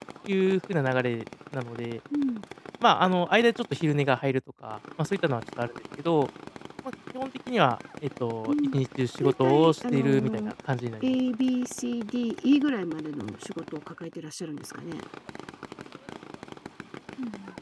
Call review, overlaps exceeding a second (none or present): present